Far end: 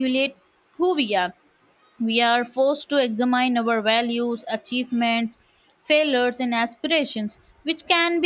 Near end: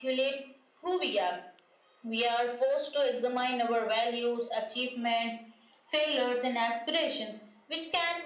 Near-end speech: none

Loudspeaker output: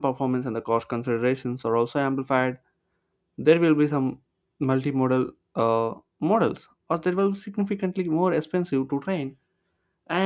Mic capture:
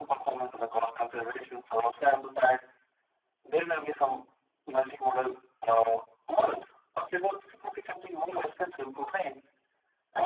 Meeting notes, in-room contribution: none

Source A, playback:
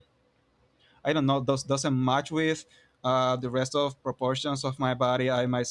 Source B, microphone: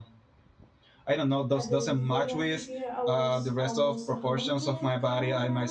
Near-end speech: present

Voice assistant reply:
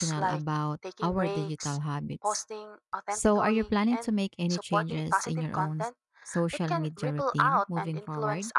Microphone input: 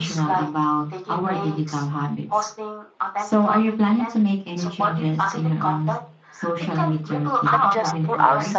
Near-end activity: present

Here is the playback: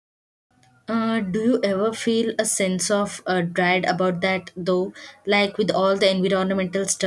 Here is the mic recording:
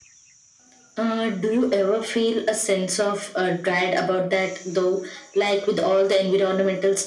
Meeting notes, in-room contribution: none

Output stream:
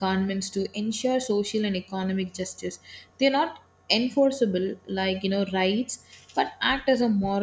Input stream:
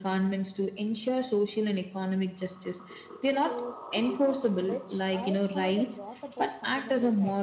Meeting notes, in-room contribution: present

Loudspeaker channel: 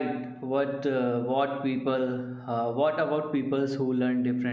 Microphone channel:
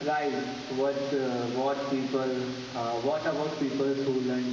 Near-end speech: none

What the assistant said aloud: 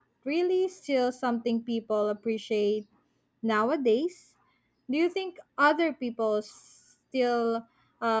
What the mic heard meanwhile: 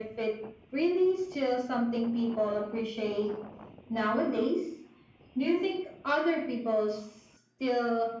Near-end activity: none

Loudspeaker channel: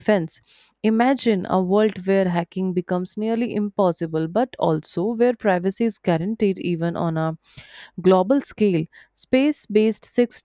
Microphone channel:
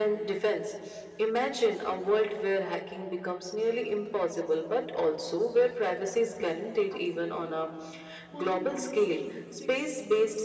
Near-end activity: present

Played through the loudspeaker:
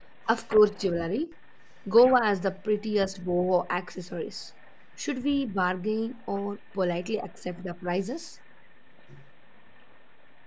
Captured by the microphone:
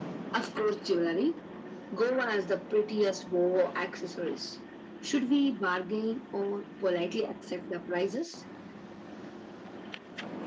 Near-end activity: none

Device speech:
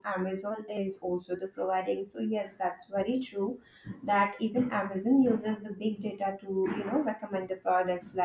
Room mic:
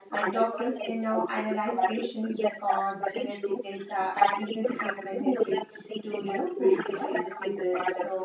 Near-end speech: present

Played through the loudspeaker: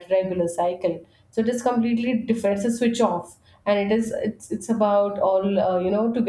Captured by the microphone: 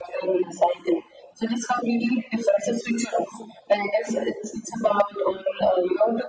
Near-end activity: none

